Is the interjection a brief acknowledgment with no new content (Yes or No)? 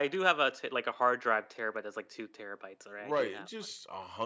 No